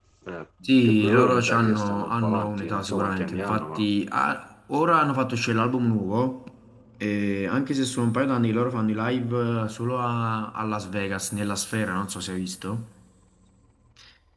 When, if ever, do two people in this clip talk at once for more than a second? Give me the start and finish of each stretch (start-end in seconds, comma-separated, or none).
0.9-3.8